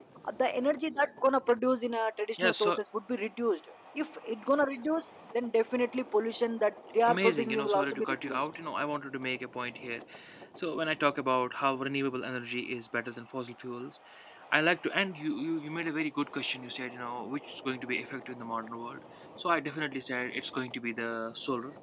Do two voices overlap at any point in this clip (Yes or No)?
Yes